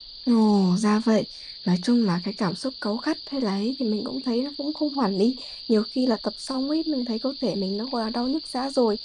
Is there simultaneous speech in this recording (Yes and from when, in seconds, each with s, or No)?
No